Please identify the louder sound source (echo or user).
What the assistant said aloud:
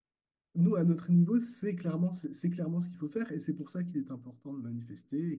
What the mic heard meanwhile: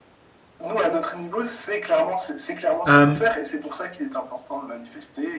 user